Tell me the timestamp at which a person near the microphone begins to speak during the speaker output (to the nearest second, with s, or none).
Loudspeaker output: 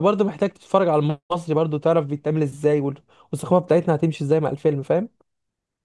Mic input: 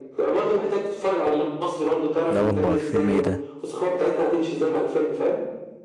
2 s